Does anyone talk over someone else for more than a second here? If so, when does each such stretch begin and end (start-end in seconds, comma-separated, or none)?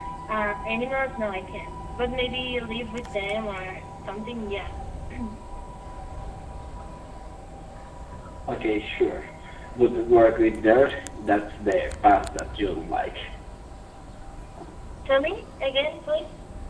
none